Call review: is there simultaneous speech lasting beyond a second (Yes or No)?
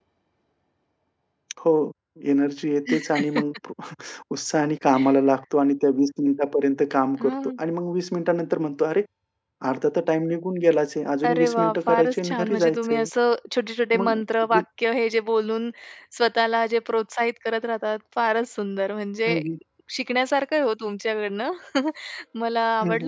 Yes